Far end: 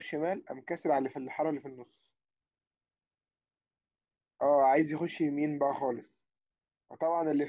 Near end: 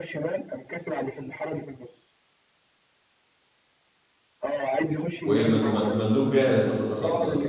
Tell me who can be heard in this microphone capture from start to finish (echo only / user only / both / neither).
both